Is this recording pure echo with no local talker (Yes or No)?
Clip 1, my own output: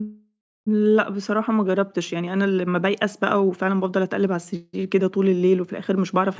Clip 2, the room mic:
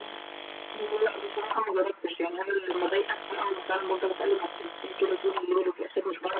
Yes